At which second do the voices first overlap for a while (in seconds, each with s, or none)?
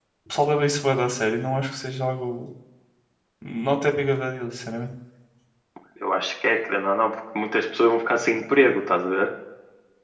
none